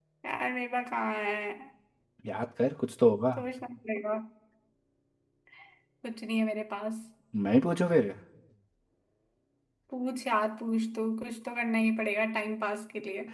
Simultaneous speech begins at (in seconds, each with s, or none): none